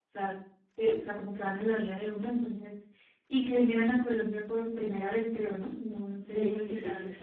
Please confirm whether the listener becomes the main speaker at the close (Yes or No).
Yes